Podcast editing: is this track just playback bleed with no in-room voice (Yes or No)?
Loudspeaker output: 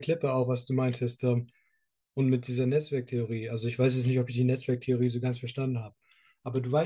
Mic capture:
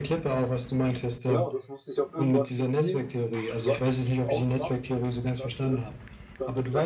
No